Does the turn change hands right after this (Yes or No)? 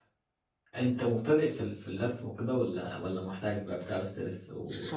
Yes